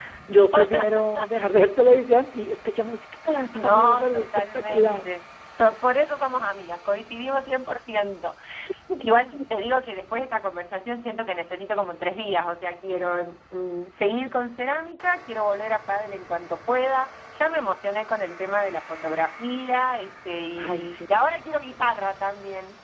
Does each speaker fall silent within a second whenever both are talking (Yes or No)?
No